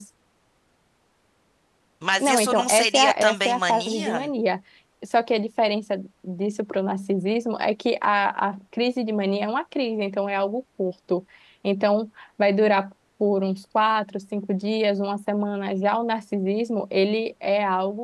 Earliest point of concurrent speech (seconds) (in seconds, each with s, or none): 2.2 s